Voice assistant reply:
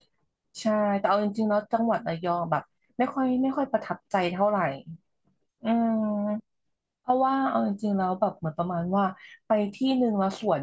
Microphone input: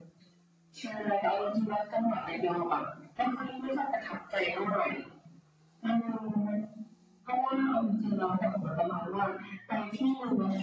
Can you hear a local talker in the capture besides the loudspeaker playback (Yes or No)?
No